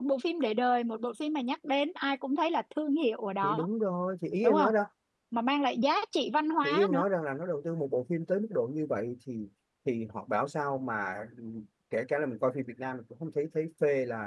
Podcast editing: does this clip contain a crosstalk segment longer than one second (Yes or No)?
No